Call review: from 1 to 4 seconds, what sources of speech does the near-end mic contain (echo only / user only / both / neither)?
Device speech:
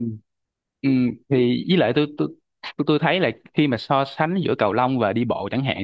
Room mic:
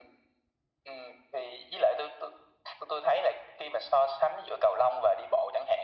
echo only